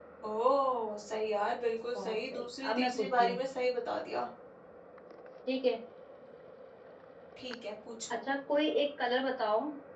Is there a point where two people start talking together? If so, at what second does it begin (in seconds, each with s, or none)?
1.9 s